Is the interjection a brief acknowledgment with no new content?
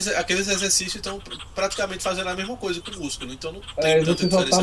No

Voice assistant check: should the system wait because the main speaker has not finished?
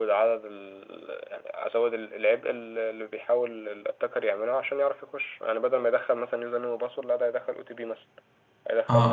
No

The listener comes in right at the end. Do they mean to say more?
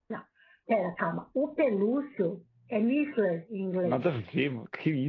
Yes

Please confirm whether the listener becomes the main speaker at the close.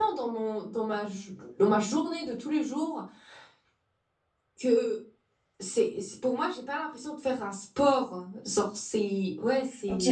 Yes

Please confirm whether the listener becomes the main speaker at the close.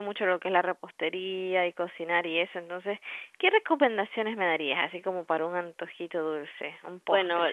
Yes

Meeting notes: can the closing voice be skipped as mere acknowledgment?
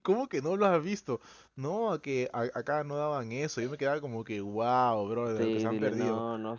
No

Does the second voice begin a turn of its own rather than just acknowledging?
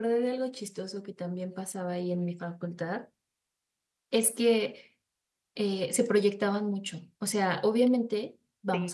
No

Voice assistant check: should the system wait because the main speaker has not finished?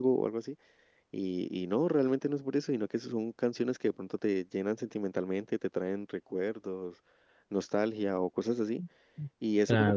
Yes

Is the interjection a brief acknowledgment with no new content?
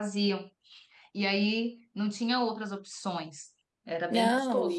No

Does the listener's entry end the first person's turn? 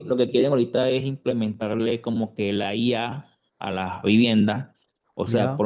No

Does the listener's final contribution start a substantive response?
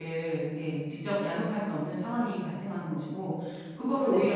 No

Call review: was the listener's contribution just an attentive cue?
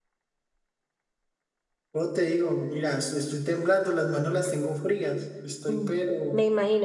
No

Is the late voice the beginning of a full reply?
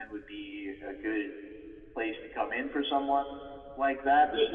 No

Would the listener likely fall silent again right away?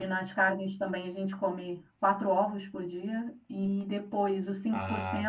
Yes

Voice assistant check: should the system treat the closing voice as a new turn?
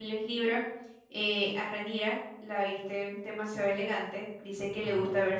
No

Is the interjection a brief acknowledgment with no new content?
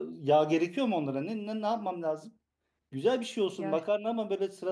Yes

